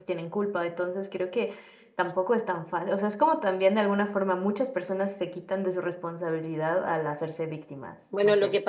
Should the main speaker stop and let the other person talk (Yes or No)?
Yes